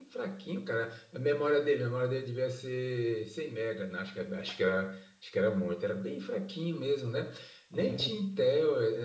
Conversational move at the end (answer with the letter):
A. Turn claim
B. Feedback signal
B